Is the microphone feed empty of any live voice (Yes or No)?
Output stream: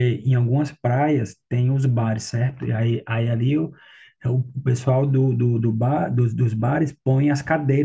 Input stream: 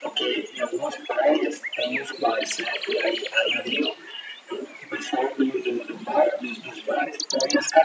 Yes